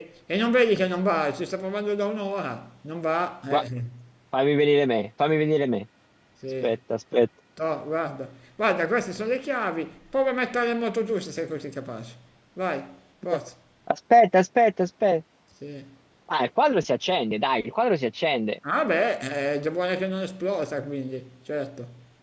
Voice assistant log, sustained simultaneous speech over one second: none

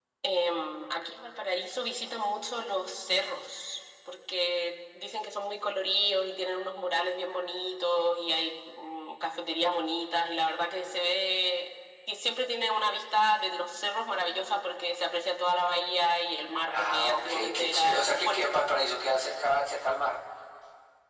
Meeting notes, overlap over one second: present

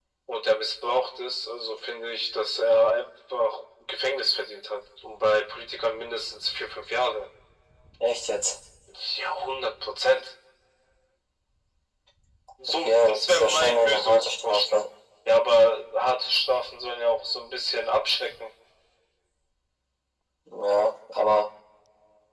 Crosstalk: present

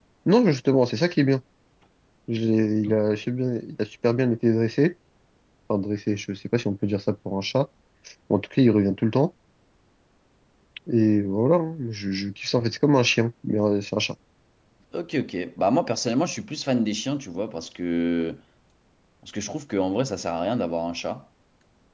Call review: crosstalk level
none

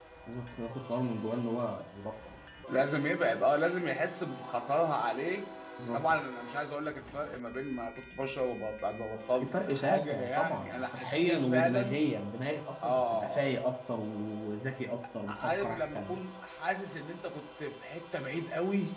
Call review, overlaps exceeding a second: present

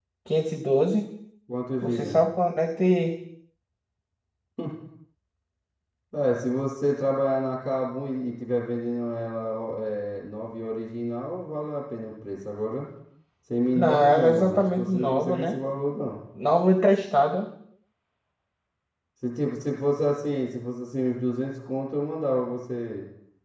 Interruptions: present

